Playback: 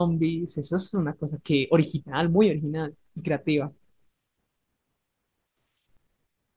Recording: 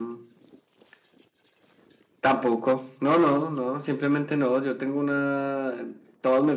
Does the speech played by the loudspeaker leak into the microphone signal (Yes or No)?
No